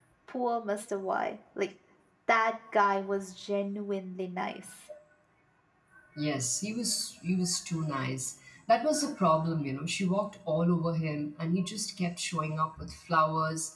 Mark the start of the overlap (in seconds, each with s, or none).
none